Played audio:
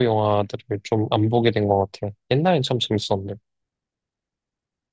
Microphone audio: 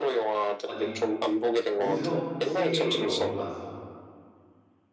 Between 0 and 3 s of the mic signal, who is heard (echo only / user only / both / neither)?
both